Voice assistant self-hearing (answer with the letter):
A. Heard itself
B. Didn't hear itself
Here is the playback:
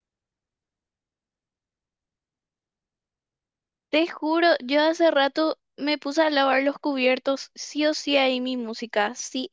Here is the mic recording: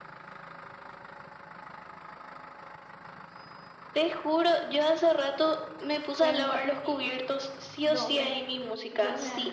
A